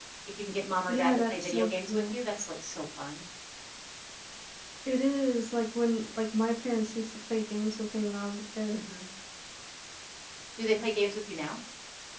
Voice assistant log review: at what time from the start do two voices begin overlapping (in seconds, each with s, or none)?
0.9 s